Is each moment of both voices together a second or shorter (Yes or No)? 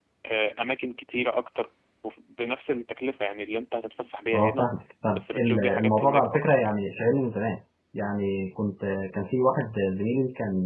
No